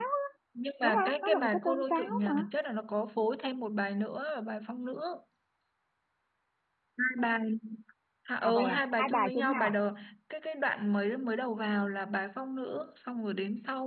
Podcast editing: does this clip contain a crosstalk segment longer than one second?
Yes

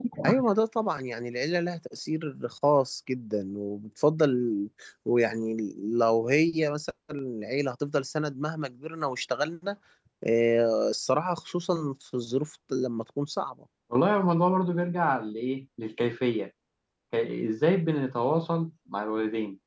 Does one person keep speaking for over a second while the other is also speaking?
No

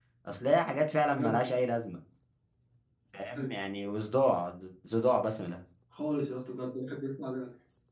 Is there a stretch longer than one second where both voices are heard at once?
No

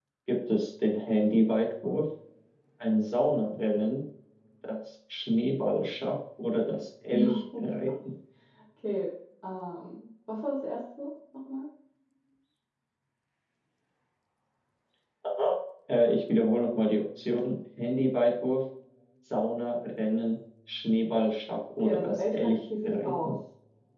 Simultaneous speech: Yes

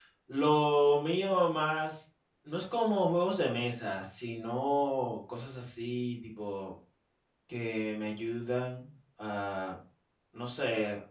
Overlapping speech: No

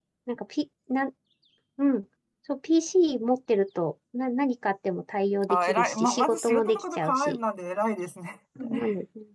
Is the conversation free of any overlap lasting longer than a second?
No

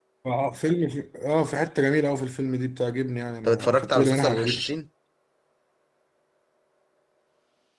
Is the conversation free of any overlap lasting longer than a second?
No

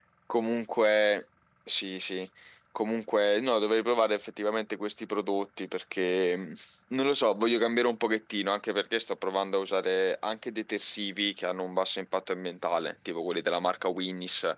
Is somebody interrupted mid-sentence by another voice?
No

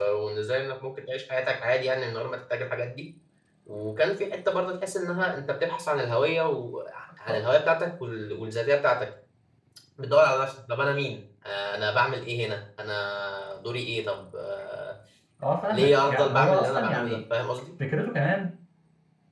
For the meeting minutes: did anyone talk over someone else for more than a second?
Yes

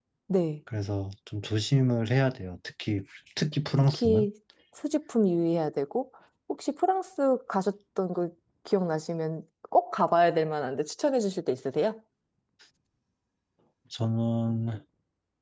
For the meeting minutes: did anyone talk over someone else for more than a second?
No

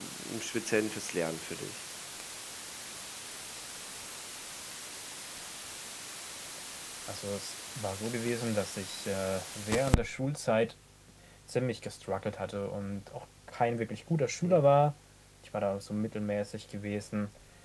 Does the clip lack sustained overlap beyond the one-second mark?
Yes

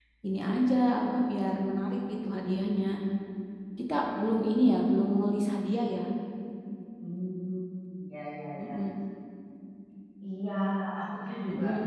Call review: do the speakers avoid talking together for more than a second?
Yes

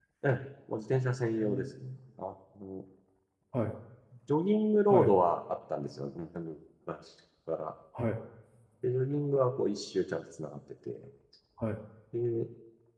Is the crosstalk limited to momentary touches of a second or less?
Yes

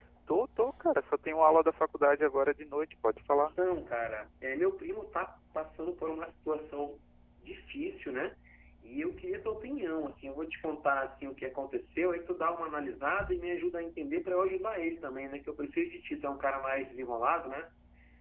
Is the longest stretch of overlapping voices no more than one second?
Yes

